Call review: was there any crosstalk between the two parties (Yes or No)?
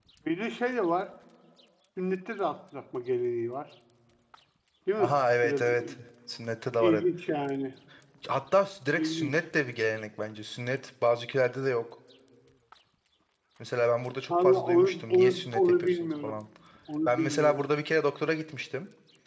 Yes